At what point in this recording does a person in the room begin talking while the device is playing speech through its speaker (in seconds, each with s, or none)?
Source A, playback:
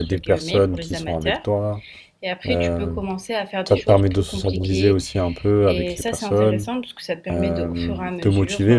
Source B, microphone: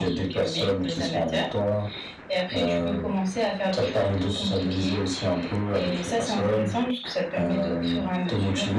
none